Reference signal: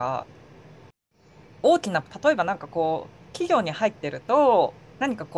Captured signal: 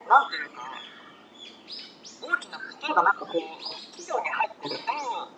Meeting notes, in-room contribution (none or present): none